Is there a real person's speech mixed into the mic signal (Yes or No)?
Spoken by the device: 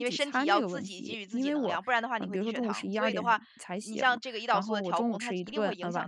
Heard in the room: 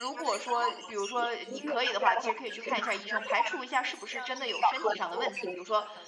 Yes